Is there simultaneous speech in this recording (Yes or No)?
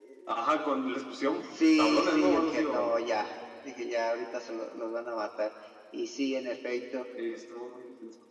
Yes